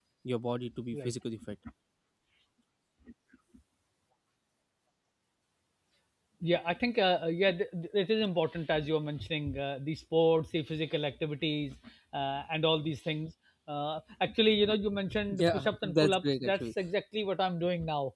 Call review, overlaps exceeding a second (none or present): present